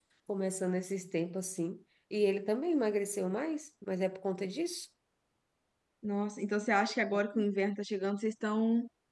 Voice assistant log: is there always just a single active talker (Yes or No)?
Yes